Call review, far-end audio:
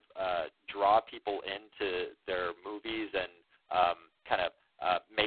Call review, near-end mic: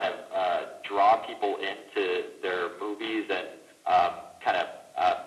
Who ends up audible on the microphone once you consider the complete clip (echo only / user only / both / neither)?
echo only